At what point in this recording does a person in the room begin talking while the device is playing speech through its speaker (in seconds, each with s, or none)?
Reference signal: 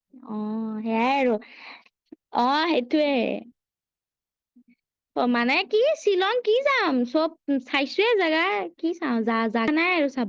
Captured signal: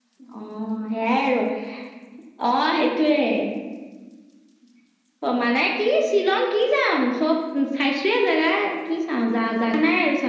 none